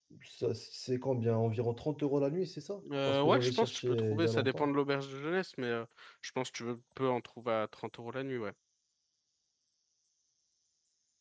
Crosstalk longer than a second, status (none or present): present